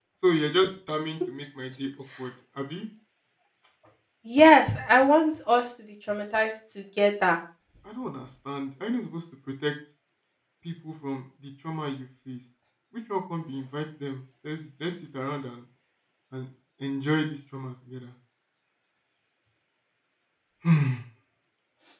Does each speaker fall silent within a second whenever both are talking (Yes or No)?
Yes